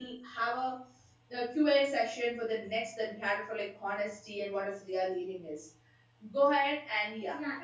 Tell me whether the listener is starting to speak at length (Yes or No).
Yes